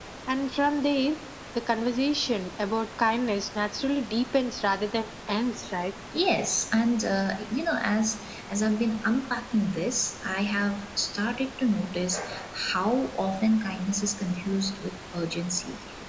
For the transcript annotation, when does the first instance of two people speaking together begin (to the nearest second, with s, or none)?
none